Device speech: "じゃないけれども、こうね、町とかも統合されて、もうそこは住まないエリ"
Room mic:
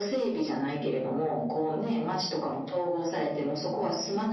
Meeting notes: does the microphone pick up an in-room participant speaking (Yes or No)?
No